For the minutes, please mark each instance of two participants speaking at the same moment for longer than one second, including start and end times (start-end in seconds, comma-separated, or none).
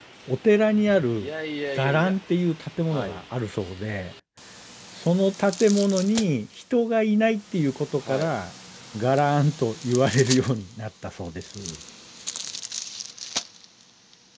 none